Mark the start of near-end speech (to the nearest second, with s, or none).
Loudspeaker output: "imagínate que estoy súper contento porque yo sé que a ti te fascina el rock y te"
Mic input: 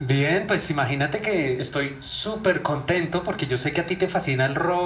none